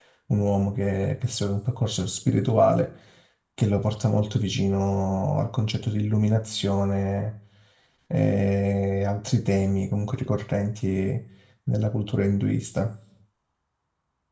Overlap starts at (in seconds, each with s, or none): none